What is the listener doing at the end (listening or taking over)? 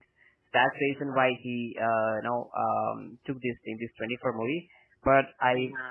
listening